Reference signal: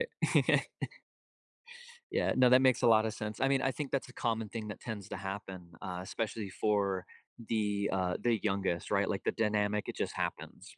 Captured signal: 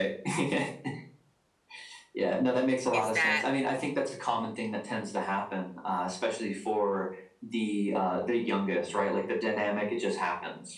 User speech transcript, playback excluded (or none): is that